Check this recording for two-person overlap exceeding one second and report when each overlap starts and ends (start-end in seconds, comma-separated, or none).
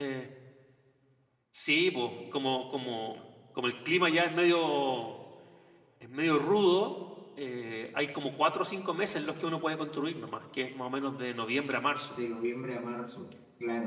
none